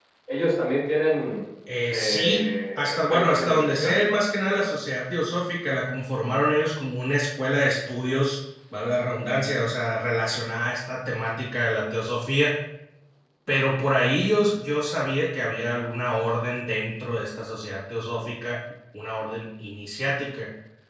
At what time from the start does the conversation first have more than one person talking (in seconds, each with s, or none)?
1.9 s